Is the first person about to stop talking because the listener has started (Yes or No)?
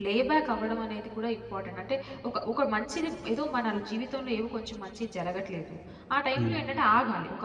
No